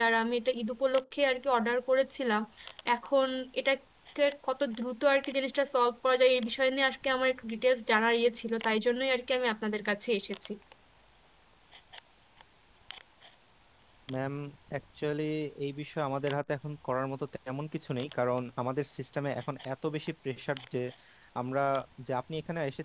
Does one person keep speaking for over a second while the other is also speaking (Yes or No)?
No